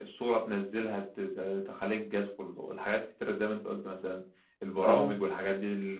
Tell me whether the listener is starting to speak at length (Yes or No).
No